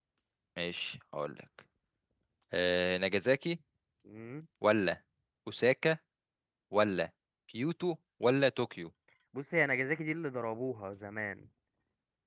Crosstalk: none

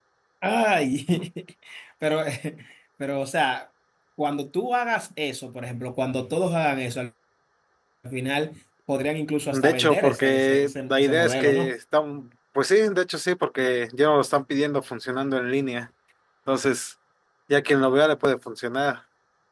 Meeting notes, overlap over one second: present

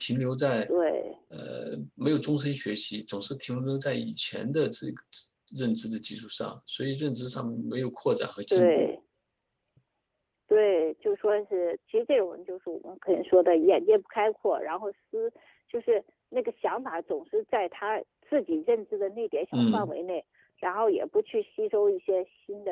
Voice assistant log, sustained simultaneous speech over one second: none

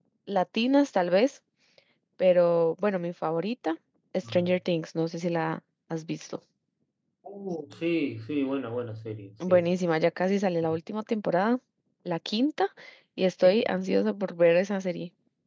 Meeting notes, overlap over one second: none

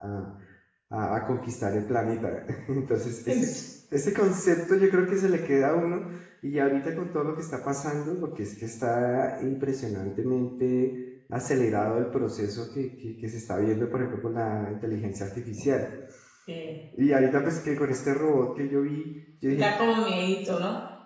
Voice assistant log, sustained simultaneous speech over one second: none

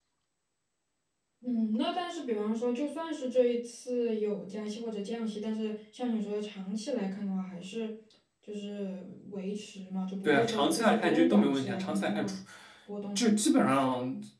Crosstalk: present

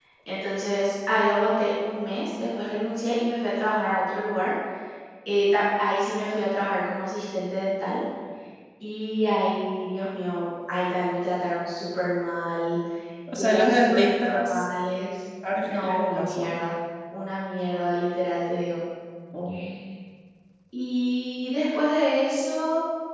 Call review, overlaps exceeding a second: present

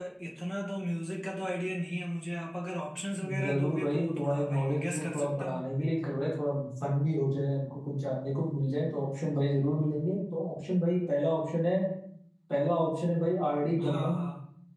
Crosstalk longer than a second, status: present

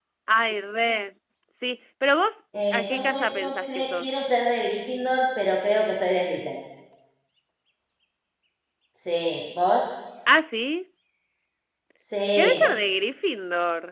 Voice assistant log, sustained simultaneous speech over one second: present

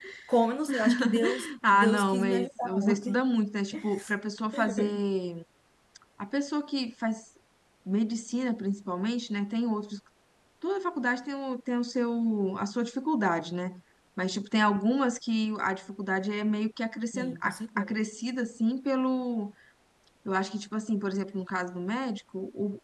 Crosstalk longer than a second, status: present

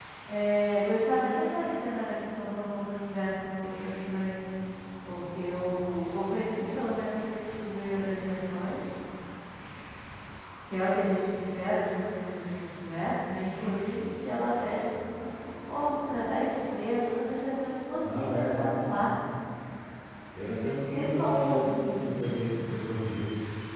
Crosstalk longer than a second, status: present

